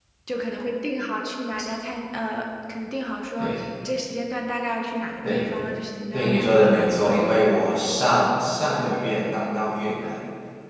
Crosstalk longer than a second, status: present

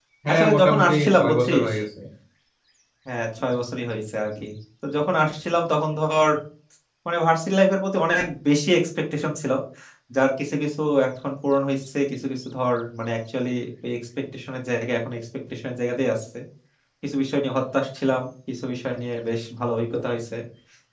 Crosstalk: present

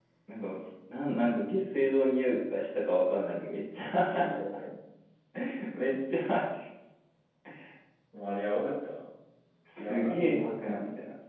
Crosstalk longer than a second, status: present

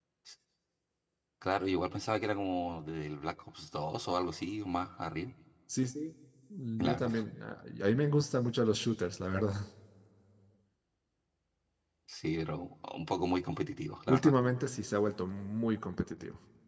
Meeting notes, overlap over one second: none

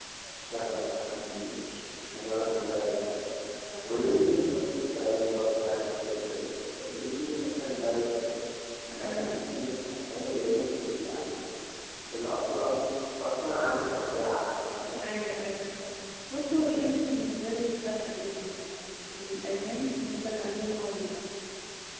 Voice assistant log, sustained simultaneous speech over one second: none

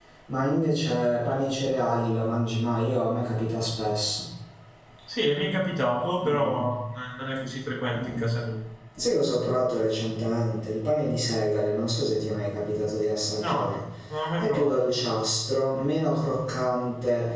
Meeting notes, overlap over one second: none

